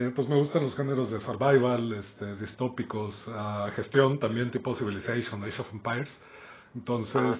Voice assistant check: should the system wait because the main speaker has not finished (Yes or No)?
Yes